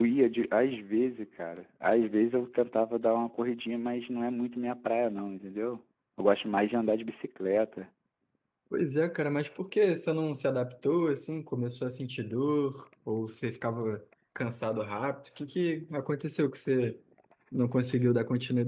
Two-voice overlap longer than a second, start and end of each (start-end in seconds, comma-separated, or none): none